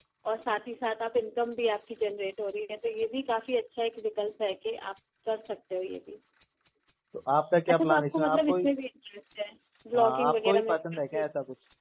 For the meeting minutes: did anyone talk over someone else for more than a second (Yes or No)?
Yes